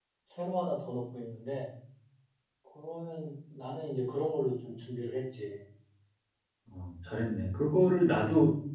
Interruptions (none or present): none